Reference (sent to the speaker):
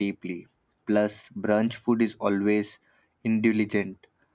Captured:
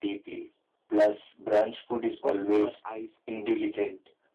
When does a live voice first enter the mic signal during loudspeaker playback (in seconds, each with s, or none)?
2.2 s